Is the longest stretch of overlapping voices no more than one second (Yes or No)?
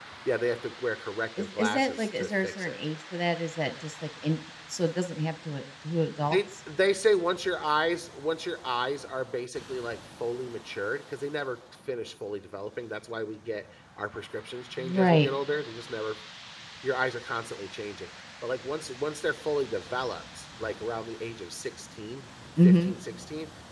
No